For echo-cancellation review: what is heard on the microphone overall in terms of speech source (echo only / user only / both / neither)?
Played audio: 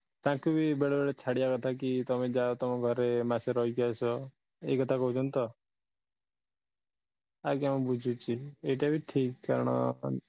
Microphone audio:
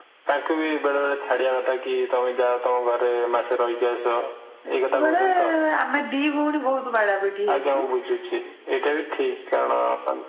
both